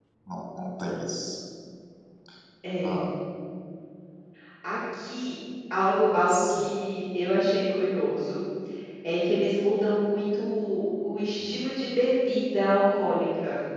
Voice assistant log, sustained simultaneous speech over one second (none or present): none